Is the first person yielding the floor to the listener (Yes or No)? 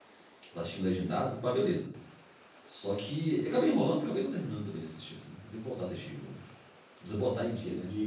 Yes